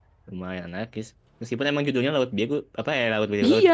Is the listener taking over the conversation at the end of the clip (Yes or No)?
Yes